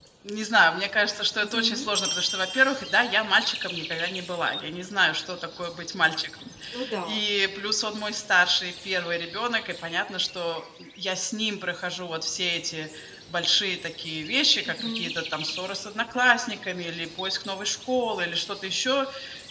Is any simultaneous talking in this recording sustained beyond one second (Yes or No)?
No